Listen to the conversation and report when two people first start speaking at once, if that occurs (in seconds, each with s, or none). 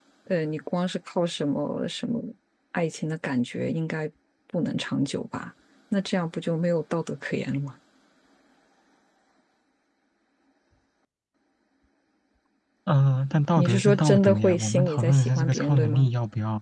13.6 s